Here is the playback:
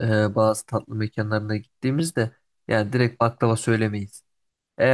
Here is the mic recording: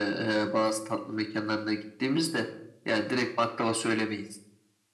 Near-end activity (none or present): none